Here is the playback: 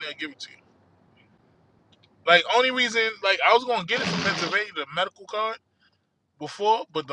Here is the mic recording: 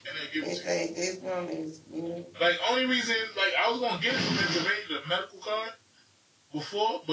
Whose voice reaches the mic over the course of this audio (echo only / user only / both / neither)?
both